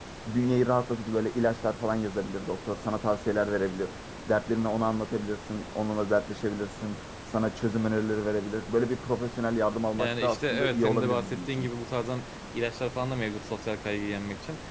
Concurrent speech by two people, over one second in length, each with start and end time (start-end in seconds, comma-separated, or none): 10.0-11.7